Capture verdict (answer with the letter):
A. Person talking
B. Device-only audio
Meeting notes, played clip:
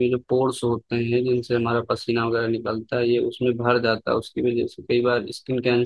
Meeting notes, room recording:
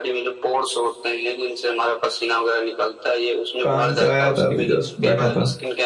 A